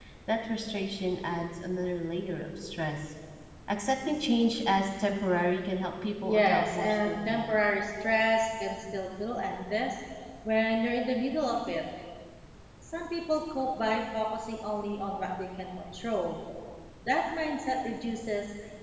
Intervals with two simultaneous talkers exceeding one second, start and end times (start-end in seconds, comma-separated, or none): 6.2-7.5